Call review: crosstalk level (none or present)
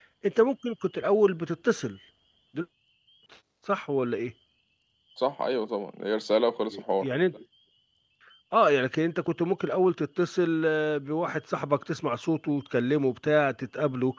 none